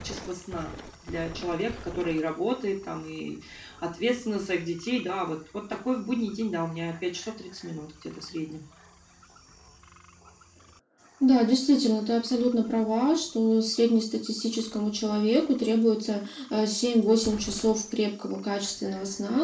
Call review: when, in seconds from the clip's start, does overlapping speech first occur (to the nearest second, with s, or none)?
none